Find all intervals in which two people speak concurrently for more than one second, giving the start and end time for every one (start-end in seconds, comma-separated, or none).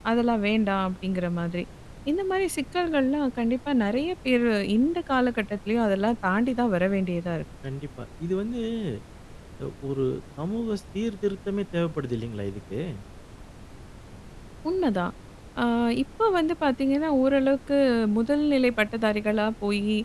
none